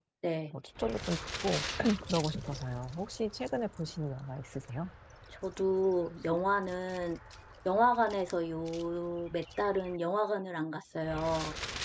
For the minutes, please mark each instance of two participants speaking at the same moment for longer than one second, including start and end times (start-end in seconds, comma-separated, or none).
none